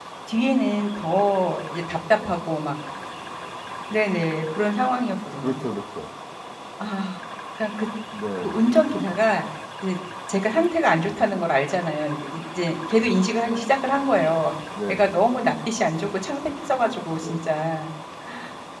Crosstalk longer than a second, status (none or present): none